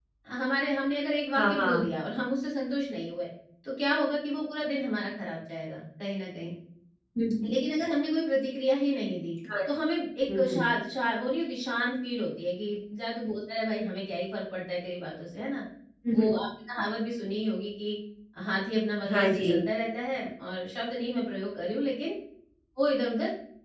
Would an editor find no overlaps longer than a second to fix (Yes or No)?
Yes